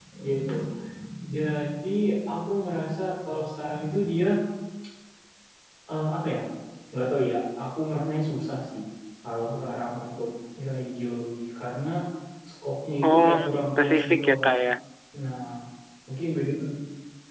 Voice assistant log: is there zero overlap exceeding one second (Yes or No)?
No